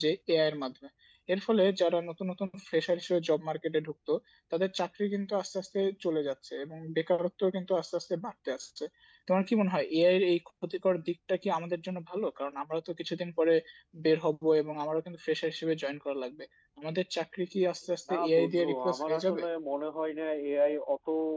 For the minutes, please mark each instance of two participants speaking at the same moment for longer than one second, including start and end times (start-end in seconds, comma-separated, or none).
18.1-19.4